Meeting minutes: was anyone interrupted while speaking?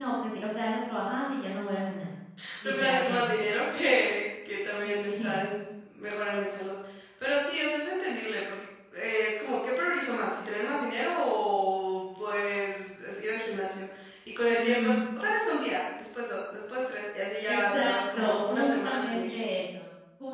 Yes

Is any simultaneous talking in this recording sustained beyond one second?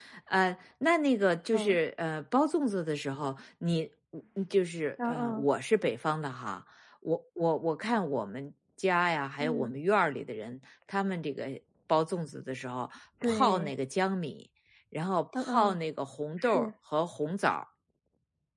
No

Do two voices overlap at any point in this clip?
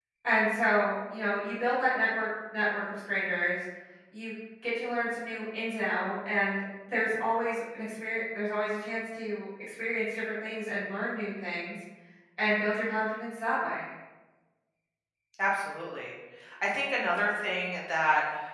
No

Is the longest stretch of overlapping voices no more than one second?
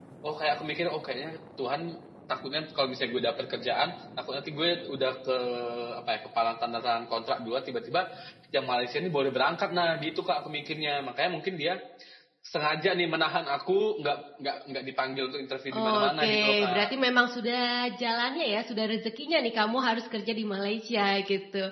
No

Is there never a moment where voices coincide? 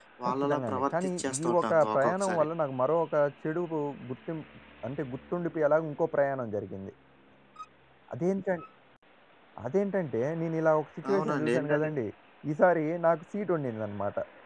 No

